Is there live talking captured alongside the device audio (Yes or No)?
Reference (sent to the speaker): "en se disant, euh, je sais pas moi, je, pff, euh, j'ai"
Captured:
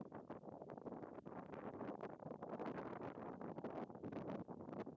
No